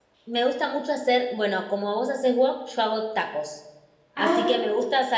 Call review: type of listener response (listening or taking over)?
listening